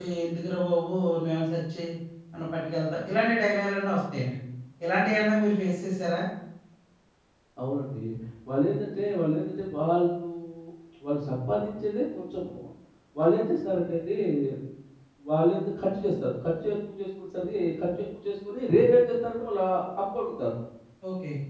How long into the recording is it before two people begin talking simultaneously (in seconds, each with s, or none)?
none